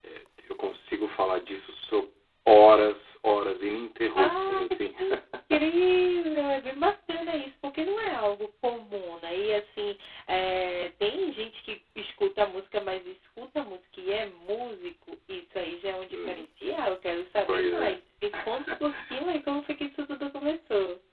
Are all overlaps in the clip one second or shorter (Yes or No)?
Yes